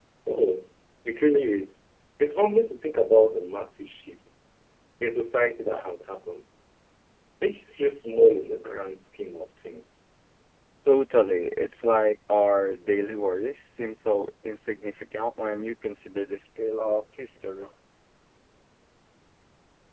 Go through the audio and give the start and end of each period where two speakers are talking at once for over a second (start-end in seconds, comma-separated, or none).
none